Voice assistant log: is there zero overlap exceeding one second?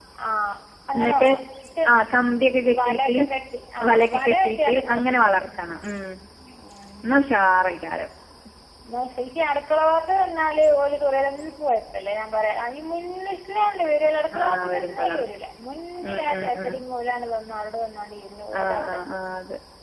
No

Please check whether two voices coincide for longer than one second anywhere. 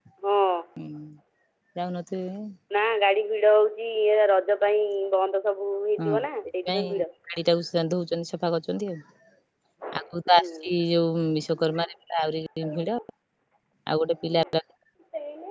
No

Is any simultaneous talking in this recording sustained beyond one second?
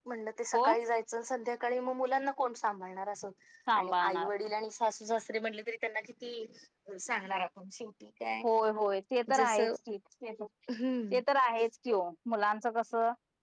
No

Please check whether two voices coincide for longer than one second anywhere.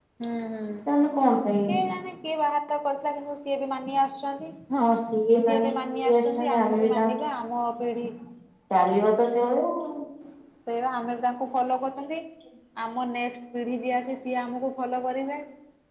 Yes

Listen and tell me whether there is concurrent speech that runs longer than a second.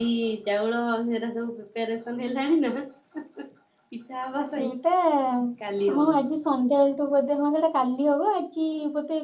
No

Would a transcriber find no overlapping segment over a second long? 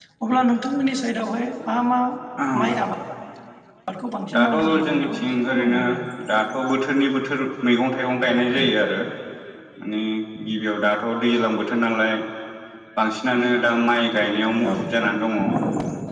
No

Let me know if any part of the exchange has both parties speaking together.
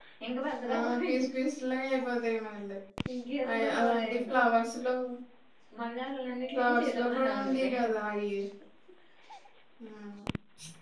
Yes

